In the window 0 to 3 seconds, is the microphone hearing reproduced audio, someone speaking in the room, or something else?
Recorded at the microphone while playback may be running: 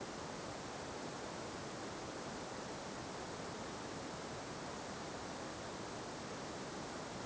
neither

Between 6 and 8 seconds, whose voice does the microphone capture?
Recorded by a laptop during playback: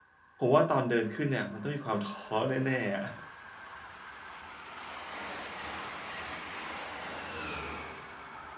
neither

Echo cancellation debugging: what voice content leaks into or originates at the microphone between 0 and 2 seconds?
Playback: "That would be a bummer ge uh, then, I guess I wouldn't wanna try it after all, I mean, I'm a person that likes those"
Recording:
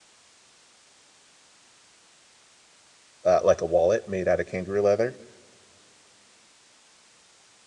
neither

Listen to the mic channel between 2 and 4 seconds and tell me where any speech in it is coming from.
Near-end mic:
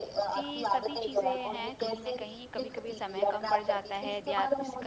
both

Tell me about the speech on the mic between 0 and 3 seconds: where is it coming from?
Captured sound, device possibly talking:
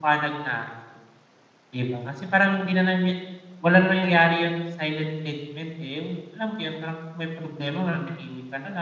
user only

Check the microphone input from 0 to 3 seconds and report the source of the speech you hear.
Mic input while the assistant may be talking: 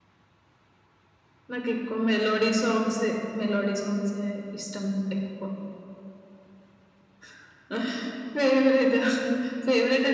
echo only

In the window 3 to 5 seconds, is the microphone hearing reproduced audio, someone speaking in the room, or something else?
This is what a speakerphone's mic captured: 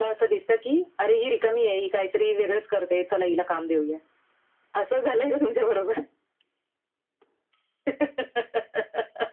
echo only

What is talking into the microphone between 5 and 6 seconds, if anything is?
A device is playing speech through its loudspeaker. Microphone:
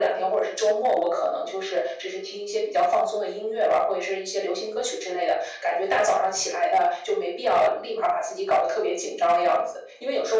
echo only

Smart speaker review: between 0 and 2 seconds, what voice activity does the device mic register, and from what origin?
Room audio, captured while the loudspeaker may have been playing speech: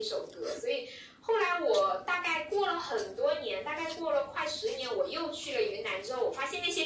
echo only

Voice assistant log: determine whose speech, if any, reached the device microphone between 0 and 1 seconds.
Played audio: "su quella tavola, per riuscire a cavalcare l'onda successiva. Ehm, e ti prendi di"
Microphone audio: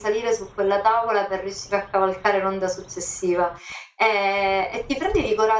echo only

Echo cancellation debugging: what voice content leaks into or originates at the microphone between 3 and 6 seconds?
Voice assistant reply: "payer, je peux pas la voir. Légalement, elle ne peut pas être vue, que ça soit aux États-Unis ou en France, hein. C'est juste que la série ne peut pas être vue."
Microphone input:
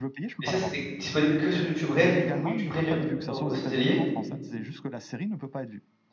both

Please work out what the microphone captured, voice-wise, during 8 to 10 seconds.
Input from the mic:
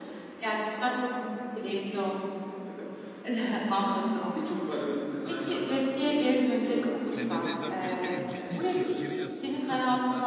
both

